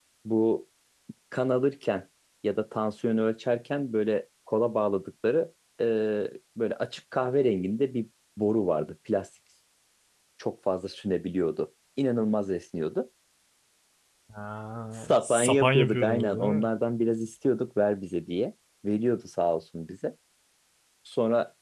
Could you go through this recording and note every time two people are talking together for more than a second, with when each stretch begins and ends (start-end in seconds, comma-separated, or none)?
14.9-16.7